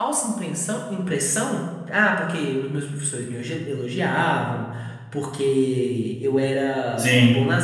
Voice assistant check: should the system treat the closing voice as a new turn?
No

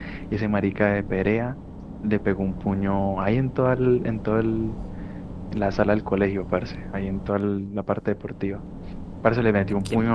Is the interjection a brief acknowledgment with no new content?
Yes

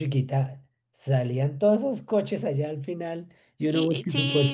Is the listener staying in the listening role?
No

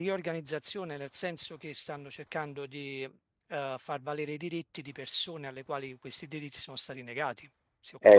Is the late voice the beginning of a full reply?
Yes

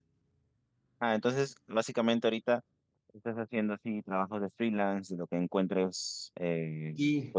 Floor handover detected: No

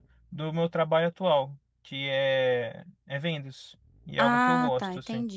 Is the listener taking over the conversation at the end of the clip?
Yes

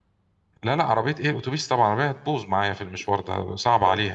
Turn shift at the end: Yes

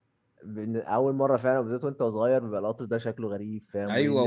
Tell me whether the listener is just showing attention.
No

